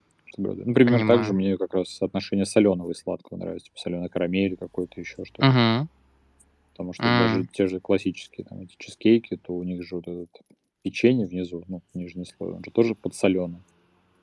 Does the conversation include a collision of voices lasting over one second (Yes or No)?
No